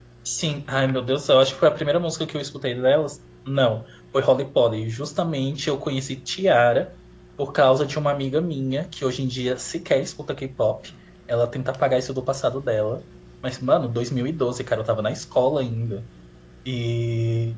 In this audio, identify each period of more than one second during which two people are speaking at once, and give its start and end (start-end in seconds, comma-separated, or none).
none